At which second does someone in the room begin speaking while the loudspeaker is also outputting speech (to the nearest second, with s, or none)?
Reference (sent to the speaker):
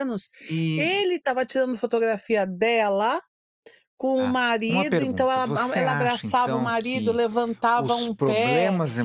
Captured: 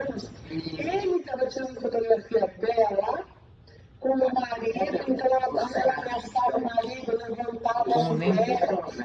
8 s